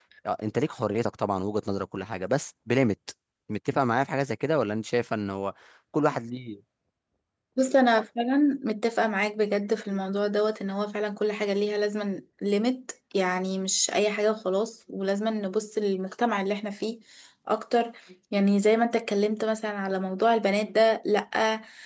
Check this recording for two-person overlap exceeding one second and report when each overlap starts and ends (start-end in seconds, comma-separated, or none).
none